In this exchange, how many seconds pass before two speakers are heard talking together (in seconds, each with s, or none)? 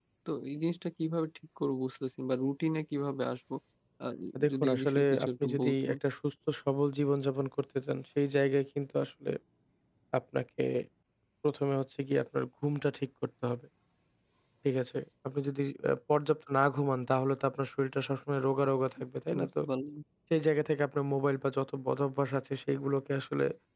4.5 s